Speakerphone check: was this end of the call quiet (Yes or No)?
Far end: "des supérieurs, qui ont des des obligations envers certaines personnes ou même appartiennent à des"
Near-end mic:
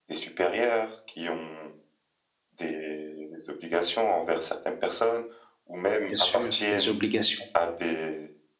No